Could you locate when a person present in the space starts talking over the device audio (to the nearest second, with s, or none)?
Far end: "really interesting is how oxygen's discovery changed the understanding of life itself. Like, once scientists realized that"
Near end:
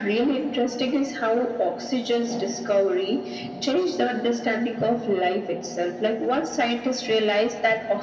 none